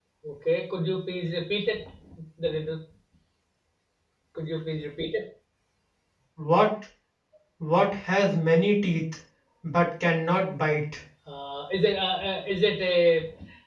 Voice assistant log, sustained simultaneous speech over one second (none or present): none